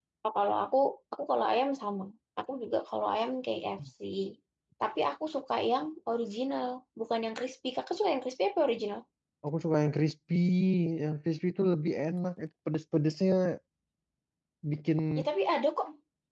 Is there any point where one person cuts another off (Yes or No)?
No